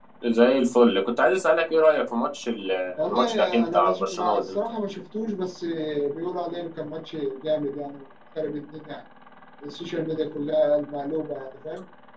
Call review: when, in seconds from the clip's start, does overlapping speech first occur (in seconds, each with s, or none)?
3.0 s